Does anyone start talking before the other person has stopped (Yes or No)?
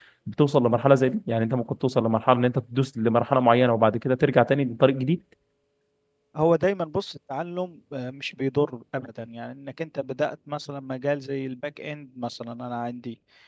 No